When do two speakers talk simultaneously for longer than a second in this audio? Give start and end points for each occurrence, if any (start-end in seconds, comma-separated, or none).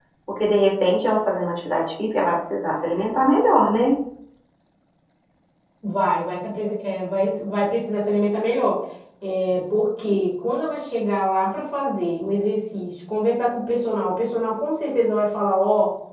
none